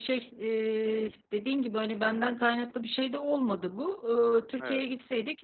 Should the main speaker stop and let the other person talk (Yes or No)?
No